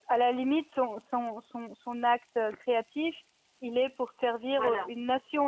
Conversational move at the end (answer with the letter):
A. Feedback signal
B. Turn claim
A